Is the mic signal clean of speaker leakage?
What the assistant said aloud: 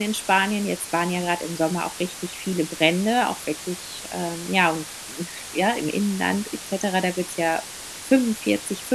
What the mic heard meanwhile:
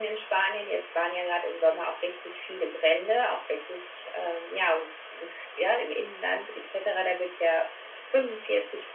No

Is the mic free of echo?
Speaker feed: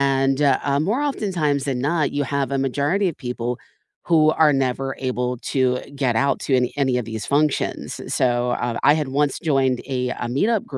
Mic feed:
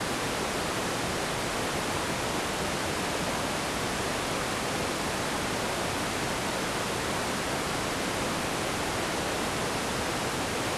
Yes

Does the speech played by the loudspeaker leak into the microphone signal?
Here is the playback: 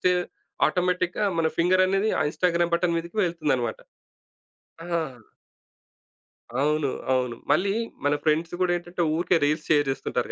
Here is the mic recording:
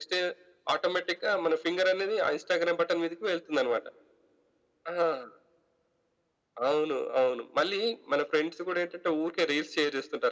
Yes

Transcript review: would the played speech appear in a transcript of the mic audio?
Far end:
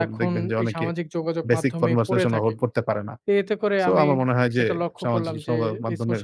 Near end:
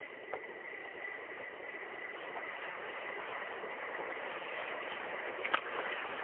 No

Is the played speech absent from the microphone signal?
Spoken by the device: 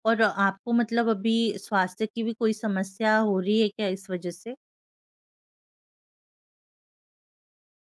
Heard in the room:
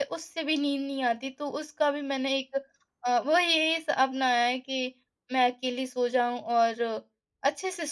Yes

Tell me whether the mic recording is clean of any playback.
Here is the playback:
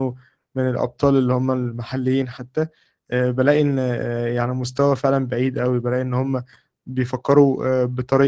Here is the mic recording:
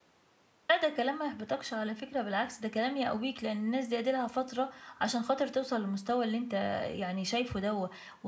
Yes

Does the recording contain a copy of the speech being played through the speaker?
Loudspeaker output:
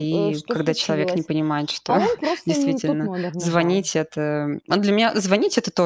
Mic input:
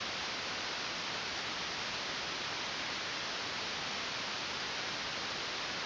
No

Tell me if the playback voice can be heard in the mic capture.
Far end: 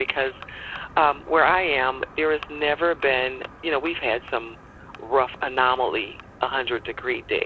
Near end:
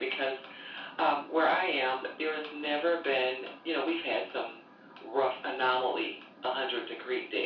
Yes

